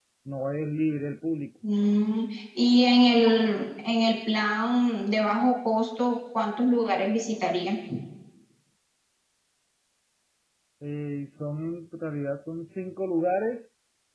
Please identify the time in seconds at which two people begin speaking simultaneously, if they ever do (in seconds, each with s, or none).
none